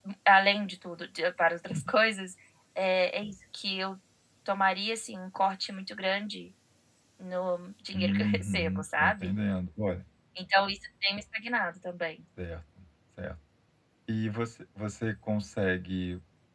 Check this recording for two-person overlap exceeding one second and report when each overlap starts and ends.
7.9-9.4

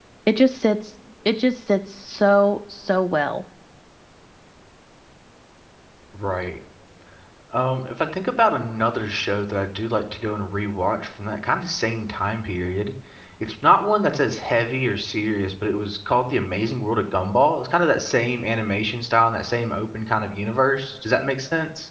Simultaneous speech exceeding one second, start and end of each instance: none

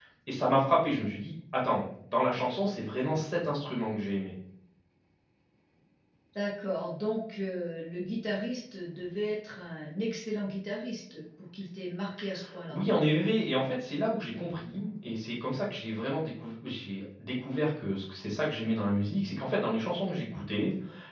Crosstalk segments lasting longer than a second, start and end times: none

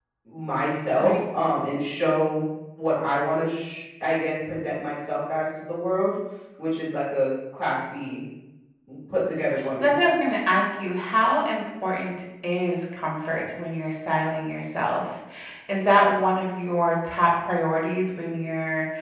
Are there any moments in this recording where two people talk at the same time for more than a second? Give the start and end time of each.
none

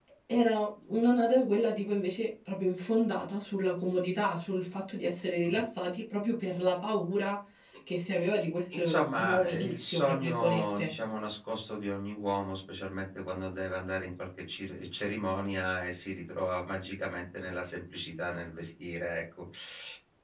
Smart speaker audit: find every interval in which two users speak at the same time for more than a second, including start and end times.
8.7-10.9

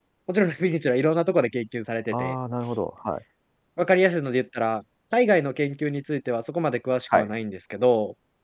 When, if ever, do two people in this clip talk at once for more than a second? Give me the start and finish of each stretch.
none

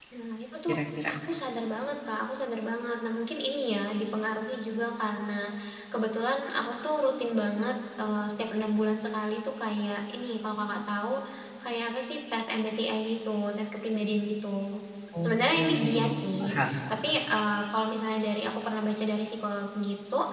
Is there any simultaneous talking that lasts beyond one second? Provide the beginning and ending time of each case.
15.2-16.8

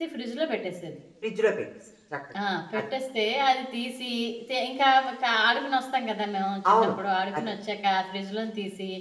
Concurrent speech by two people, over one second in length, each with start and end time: none

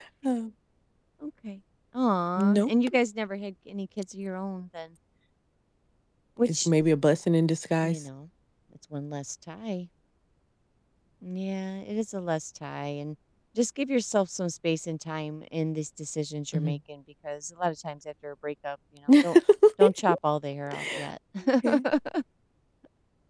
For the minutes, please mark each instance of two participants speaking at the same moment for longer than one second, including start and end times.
none

